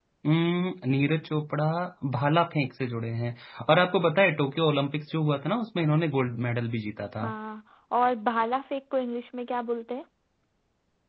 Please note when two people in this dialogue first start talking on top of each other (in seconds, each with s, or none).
none